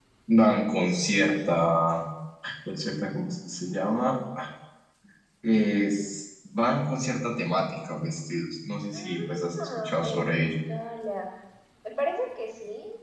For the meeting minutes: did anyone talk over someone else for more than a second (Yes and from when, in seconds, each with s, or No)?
Yes, from 8.9 s